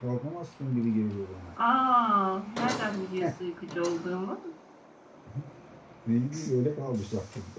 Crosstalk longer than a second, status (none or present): none